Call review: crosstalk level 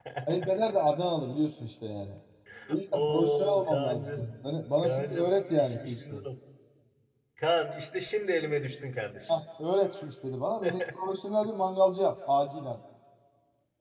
present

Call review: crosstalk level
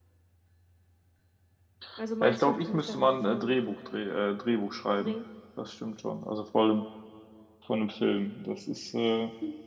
present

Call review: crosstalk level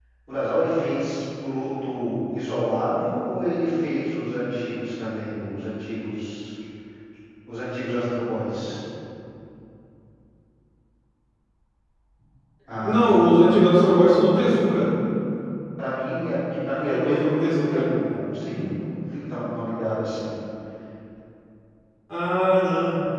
present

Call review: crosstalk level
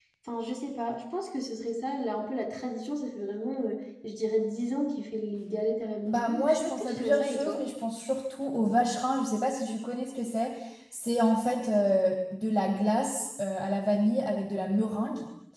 present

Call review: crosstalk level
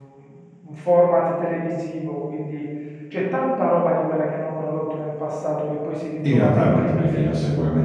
present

